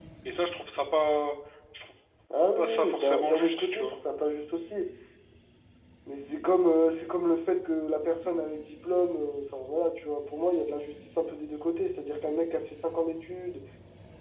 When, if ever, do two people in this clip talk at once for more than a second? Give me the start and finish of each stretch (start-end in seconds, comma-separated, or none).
2.6-3.9